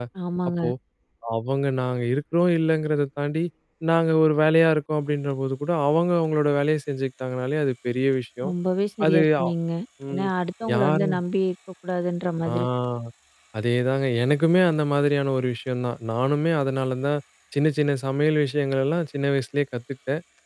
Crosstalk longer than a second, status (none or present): none